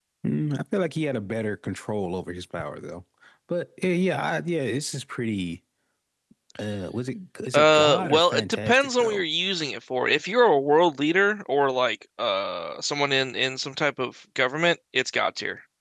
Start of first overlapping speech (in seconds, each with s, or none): 7.5 s